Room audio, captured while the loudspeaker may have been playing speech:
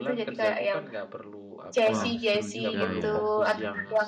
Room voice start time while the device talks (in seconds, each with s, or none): 1.9 s